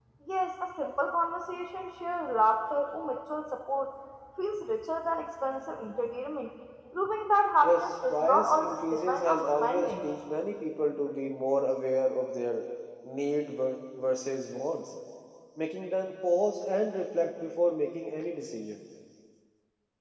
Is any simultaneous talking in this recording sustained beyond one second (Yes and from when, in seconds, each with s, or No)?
Yes, from 7.6 s